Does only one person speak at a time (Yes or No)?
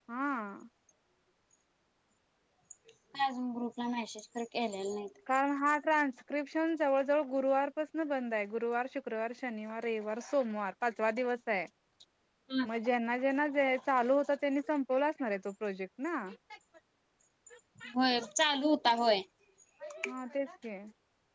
Yes